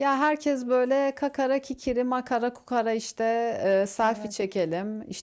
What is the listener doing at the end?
listening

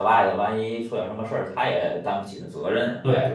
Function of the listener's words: taking over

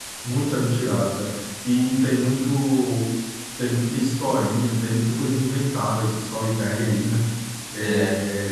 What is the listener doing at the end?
listening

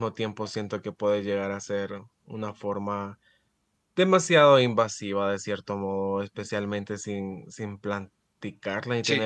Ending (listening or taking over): listening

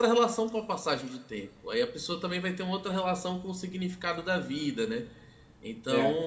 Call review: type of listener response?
listening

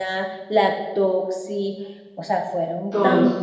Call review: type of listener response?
listening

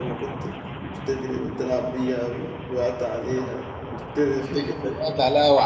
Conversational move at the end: taking over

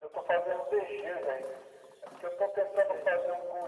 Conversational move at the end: listening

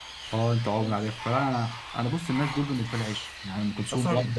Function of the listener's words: taking over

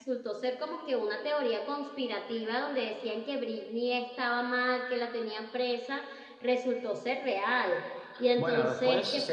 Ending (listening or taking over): taking over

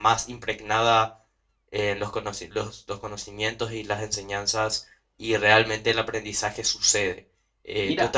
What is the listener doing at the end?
taking over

